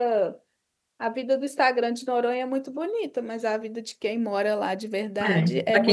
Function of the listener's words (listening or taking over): taking over